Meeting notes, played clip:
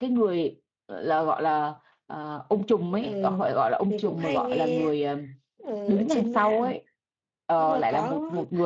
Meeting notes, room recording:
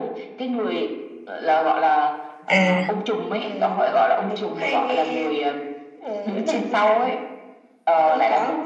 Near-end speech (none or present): present